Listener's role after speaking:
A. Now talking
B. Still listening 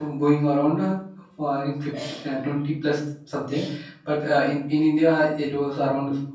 B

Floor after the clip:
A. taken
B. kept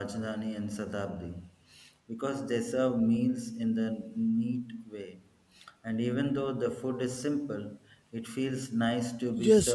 A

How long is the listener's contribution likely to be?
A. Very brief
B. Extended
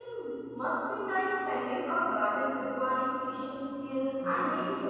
B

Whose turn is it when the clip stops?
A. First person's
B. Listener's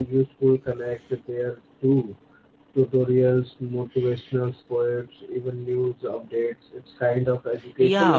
B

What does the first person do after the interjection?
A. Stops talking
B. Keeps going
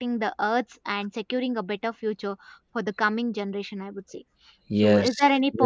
A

